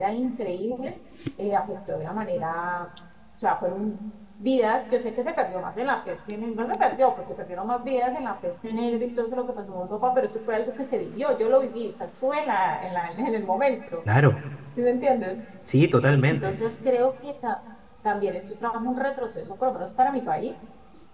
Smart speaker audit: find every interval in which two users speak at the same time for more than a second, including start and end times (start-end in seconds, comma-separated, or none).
none